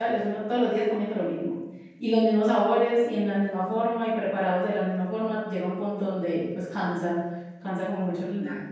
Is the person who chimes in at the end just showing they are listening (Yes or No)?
No